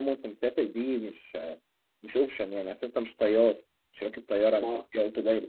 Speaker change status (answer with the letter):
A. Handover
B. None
B